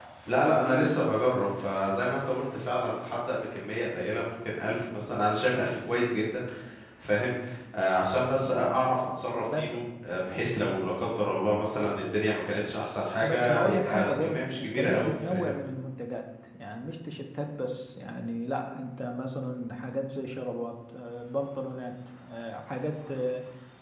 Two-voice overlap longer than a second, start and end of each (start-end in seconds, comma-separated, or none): 13.2-15.6